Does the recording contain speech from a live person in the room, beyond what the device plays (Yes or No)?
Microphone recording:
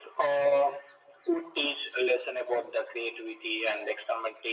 No